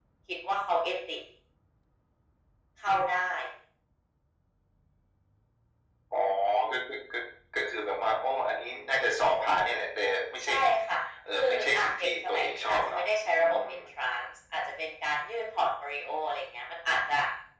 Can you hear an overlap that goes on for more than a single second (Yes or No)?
Yes